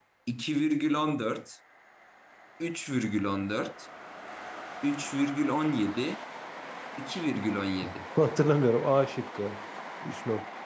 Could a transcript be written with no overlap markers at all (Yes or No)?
Yes